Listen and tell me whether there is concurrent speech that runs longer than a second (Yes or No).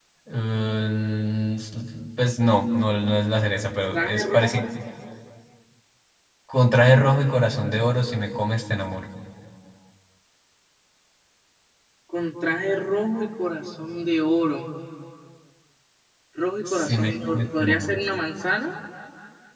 Yes